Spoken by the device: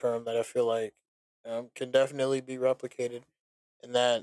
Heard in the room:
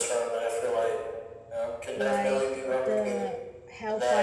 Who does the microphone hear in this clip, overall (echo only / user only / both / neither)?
both